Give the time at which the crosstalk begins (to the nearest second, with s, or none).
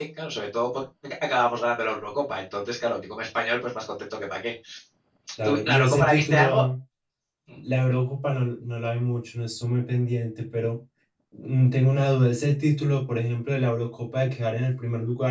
5 s